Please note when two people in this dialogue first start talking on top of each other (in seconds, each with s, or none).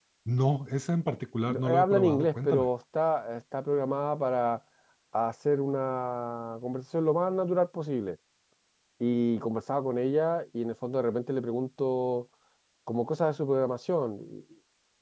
1.5 s